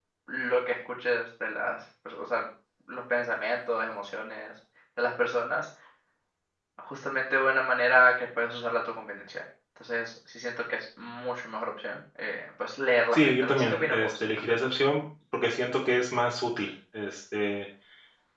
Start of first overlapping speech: 13 s

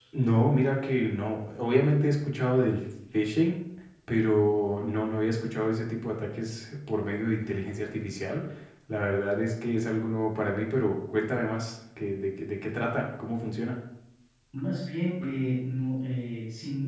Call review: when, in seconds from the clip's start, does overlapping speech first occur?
none

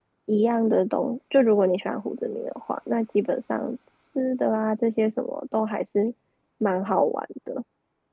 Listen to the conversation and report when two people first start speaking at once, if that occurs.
none

